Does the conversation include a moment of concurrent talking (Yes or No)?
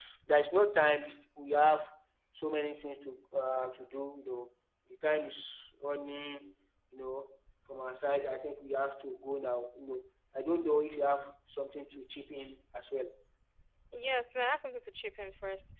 No